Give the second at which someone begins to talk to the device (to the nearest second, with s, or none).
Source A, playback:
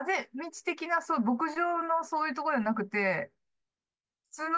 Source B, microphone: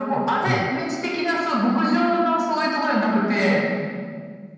0 s